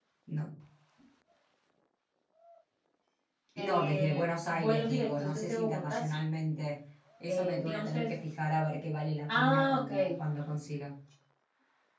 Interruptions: present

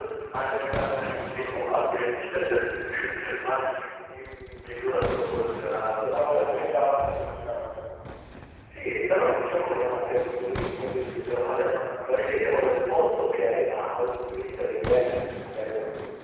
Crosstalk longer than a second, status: present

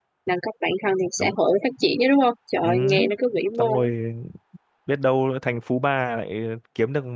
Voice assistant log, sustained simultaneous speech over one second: none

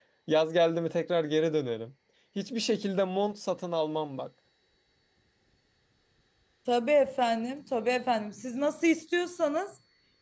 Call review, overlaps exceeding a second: none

